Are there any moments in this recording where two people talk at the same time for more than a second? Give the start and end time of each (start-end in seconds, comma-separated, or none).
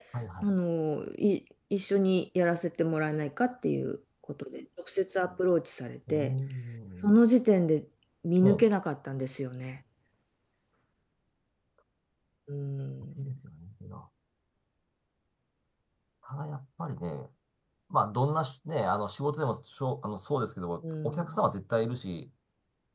none